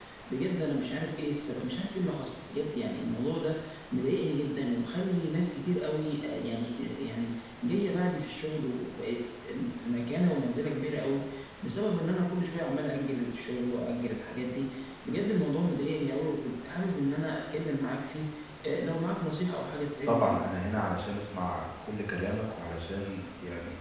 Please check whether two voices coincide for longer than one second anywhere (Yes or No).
No